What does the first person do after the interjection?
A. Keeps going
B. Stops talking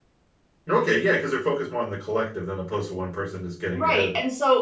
B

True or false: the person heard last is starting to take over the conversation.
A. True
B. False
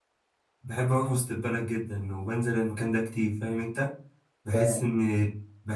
B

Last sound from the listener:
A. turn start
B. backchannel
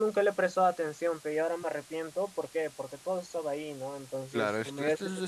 A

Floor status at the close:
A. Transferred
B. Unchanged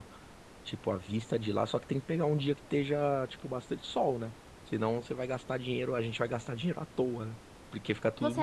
A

